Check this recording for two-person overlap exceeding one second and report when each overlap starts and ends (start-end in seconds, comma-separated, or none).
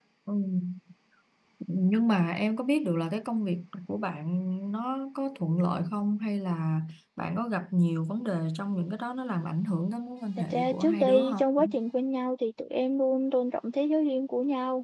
10.5-11.8